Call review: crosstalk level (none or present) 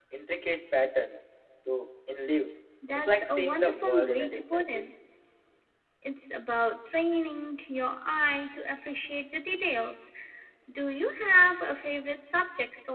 present